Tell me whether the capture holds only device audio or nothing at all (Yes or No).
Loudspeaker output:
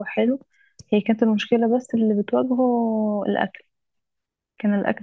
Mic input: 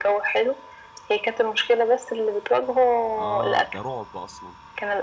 No